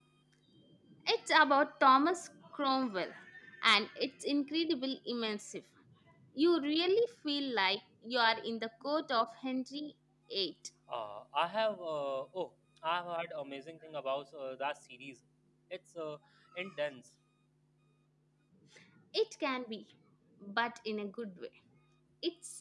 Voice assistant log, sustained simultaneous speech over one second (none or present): none